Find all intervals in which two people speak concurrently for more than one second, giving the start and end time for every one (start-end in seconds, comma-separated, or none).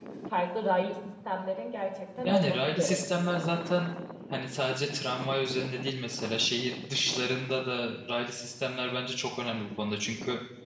2.2-3.5